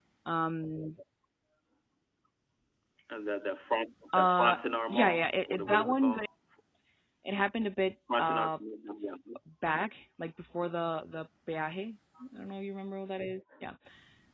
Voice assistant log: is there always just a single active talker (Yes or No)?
No